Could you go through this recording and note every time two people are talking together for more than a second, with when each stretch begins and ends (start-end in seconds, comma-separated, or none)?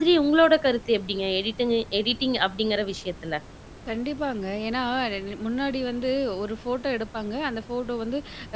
none